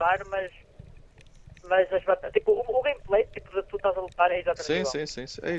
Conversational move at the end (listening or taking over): taking over